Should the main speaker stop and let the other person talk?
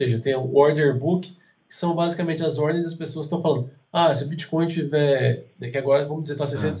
No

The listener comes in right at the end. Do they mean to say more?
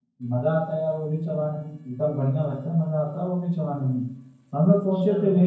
No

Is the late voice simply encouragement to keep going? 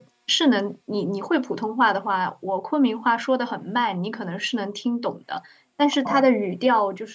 Yes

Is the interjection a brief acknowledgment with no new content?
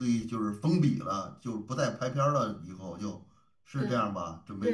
No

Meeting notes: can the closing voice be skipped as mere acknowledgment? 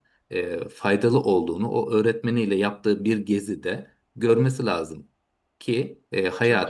Yes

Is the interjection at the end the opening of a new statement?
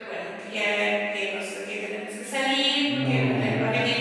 No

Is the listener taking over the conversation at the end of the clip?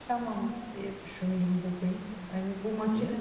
No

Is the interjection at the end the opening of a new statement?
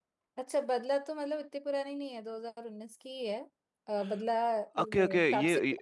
Yes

